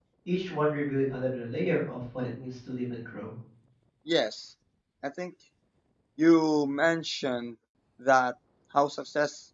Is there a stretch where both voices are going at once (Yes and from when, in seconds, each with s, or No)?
No